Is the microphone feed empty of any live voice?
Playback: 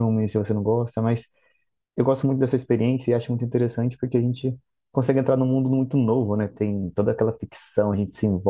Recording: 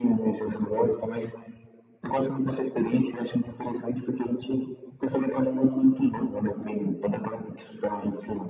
Yes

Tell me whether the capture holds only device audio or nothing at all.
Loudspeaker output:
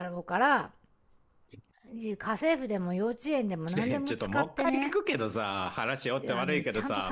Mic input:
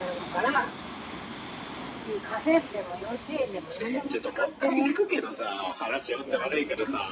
Yes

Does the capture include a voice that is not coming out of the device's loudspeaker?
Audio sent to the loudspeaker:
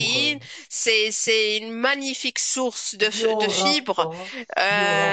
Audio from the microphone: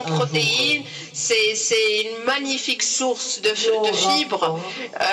No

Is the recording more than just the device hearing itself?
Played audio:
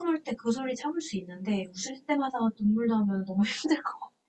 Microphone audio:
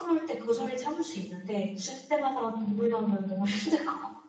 No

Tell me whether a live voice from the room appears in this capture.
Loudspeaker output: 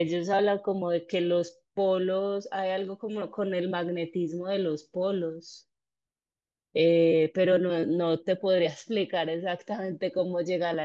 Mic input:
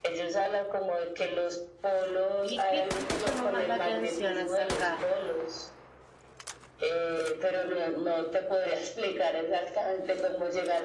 Yes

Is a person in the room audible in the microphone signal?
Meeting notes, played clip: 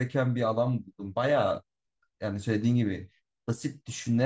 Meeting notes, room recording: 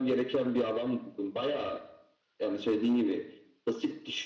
No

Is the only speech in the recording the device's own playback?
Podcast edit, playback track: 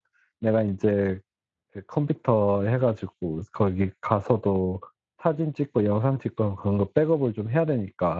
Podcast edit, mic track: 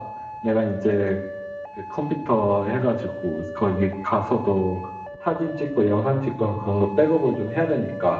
Yes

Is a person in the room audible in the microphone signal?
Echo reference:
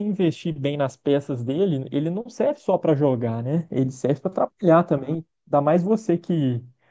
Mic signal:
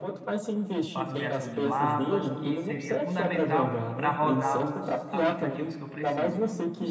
Yes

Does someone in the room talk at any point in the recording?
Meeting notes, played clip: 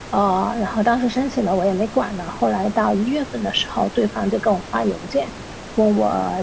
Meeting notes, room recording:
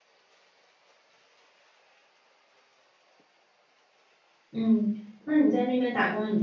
Yes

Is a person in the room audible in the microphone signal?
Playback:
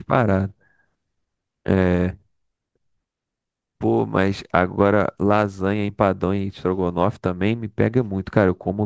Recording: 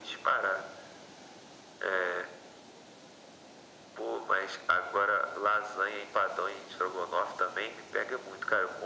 No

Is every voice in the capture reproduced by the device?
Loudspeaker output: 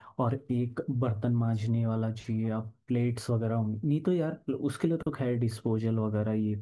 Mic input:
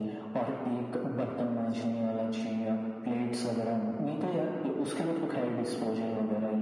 Yes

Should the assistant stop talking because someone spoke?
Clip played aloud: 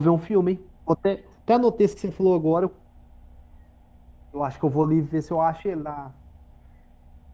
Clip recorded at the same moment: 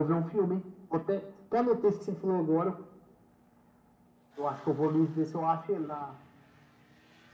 No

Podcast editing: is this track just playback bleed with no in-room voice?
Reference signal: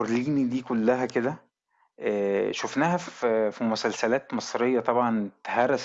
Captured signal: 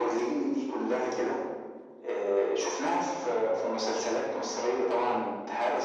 Yes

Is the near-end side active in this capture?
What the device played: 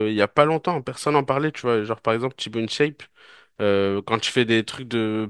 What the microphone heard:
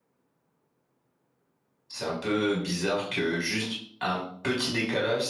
Yes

